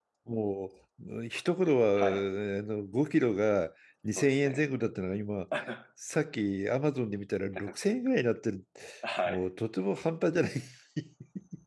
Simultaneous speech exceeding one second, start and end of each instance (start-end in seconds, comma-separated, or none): none